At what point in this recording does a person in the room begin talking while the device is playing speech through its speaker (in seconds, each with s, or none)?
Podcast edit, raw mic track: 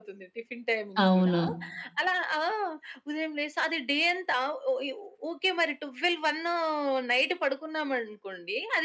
1.0 s